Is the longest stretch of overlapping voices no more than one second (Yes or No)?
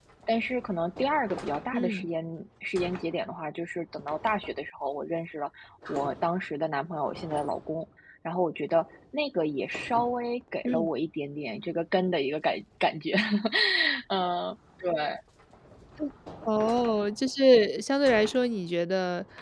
Yes